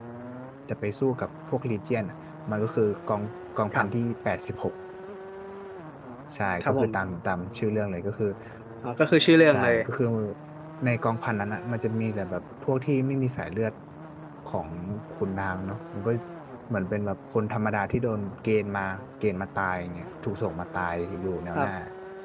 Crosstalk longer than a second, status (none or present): none